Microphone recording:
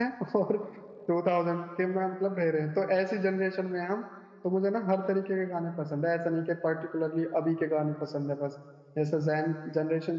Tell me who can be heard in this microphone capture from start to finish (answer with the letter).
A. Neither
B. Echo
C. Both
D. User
D